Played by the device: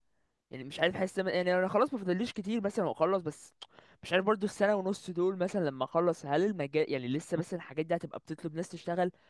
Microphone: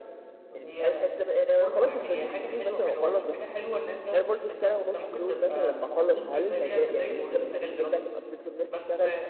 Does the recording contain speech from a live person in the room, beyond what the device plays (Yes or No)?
Yes